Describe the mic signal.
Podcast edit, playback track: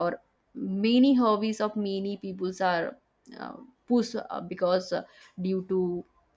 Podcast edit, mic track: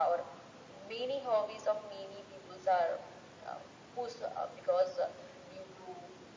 echo only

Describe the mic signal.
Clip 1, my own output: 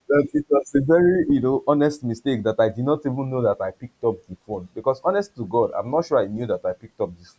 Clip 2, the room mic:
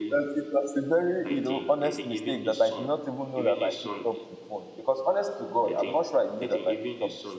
both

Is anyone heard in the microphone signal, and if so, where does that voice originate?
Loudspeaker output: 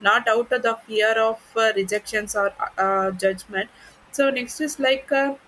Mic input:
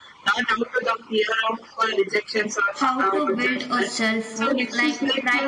both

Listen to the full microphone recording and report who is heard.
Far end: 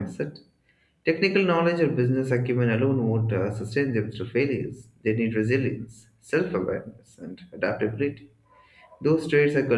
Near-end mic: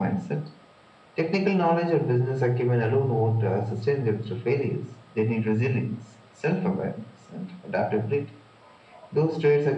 echo only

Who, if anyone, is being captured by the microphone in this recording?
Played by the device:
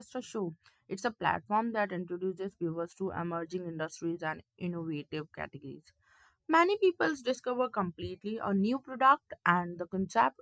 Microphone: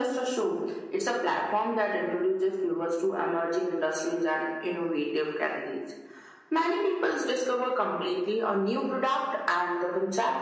echo only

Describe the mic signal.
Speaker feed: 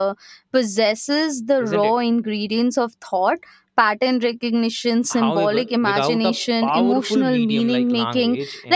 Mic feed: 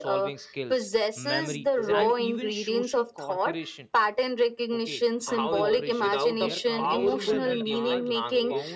both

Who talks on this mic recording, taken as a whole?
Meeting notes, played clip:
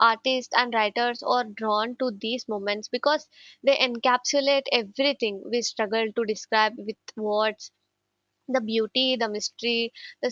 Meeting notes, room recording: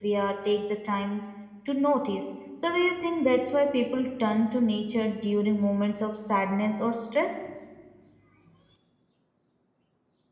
user only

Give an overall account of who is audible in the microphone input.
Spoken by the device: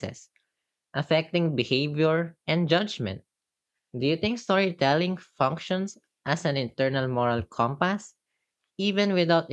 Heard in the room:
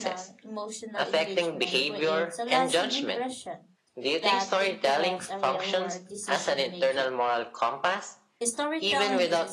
both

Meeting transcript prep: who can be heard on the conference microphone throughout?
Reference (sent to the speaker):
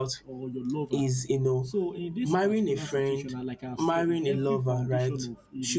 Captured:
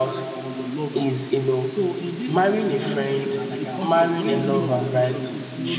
both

